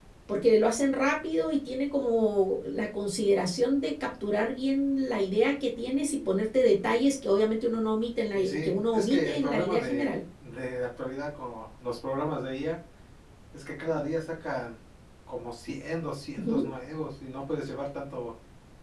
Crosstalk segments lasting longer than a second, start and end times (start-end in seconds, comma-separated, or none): 8.3-10.1